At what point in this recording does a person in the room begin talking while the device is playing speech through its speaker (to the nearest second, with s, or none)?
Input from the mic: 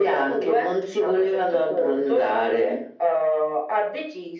none